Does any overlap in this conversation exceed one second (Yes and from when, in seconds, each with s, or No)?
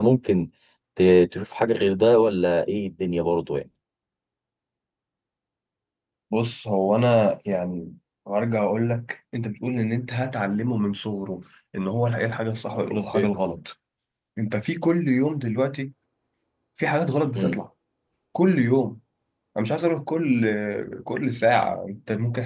No